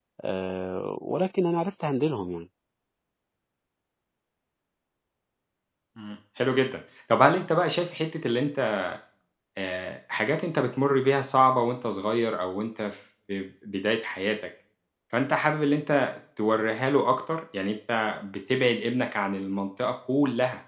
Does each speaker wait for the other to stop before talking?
Yes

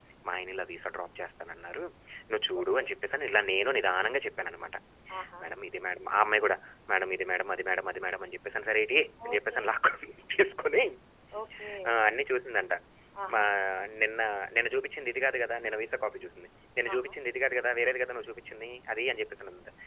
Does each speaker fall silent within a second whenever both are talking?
Yes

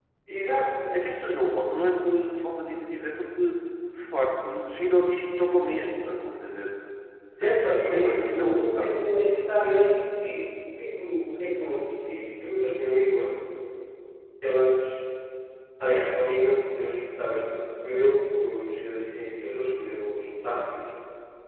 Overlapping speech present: Yes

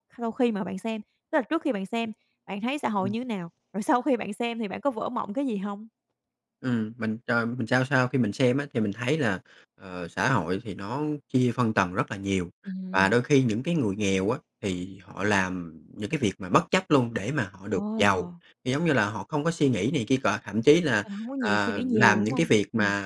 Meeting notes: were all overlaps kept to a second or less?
No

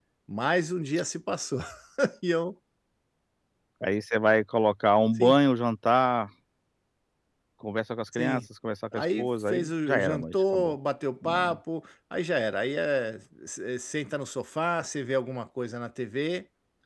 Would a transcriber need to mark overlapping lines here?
Yes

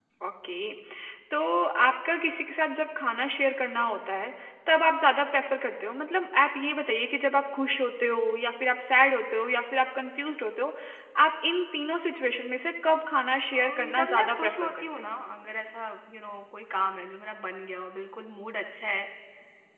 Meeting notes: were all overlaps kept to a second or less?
No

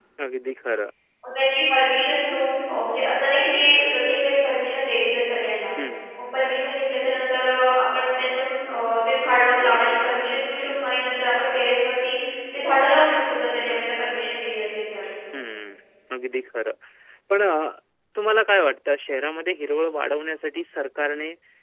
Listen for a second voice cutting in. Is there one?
No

